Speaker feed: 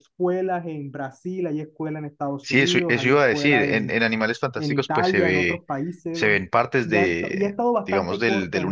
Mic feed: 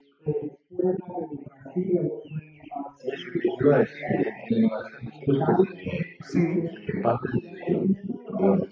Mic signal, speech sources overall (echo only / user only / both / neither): both